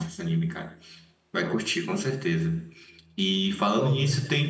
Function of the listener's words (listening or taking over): listening